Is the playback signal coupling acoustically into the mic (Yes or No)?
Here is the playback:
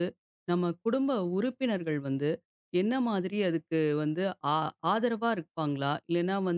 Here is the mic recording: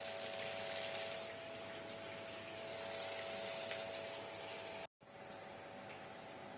No